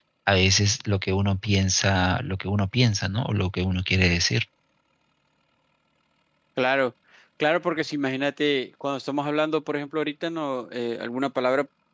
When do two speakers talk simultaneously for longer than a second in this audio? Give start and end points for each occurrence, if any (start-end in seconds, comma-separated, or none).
none